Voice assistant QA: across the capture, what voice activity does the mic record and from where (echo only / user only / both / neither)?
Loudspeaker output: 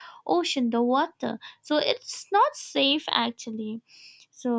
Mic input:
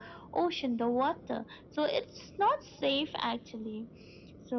echo only